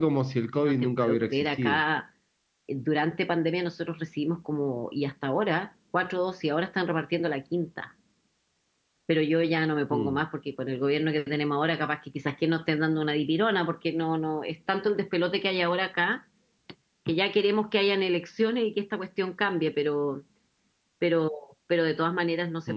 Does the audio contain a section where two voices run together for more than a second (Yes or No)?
Yes